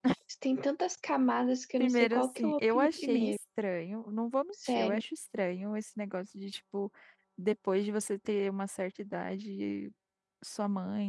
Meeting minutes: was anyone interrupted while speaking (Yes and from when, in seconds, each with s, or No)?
Yes, from 1.8 s